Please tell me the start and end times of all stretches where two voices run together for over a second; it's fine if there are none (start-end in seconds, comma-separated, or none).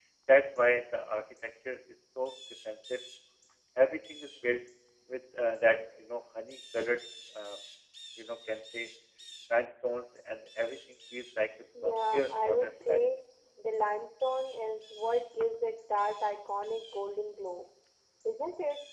11.8-13.1